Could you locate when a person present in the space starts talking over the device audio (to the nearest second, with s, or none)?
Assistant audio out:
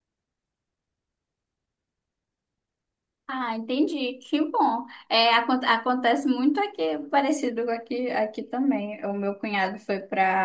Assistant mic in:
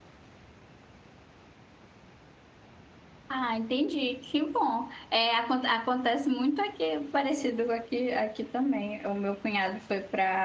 none